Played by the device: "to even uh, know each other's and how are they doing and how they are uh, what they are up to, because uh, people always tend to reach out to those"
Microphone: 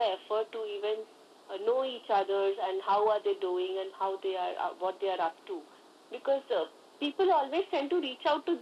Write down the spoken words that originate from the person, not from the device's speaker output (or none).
none